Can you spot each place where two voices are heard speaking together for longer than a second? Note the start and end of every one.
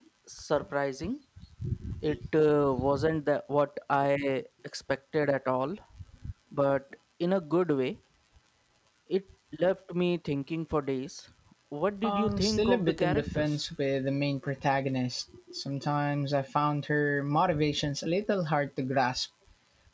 12.0-13.5

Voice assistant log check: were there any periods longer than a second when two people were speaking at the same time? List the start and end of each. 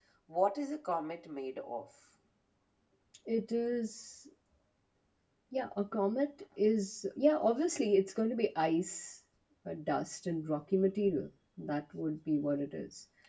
none

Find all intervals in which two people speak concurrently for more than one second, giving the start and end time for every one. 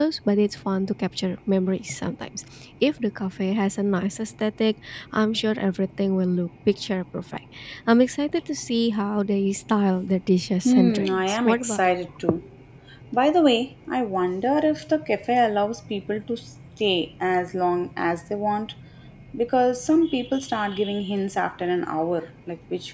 10.7-12.0

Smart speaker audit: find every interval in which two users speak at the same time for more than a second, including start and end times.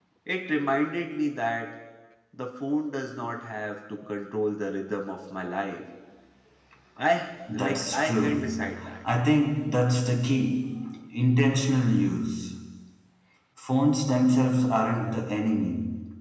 7.5-9.0

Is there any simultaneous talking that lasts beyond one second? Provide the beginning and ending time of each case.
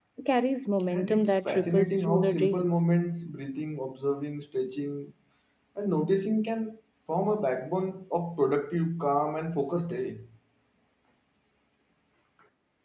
0.9-2.7

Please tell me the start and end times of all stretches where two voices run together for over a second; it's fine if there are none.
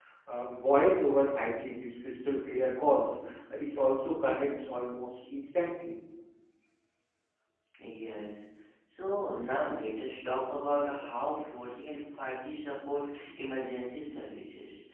none

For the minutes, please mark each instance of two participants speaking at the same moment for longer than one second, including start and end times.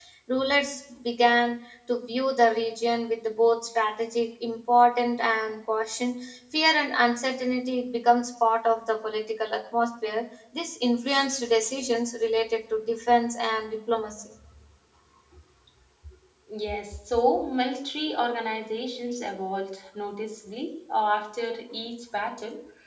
none

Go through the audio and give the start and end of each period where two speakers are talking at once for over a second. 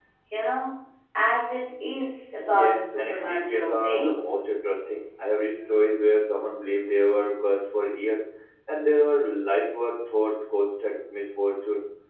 2.4-4.2

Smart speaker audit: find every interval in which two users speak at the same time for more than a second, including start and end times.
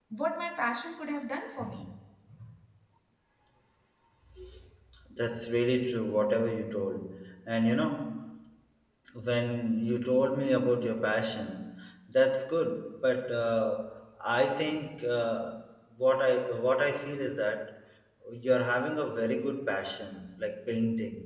none

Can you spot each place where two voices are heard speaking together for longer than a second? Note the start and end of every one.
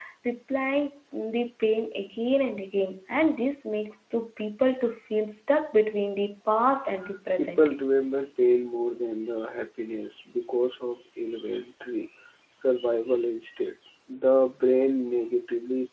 none

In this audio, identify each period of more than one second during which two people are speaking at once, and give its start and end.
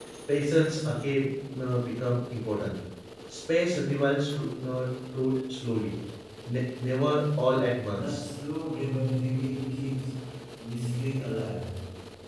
none

